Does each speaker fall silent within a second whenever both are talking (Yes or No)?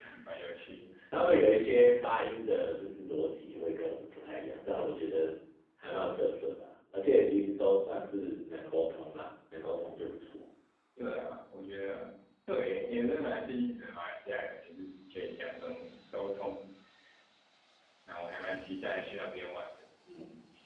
Yes